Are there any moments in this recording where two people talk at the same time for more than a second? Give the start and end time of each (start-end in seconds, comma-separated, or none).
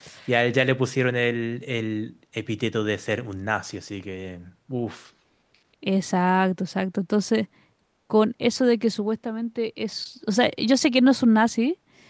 none